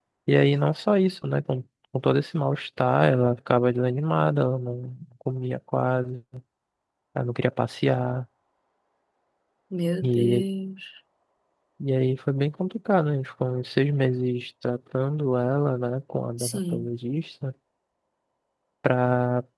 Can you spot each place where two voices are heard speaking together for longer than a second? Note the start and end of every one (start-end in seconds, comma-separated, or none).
none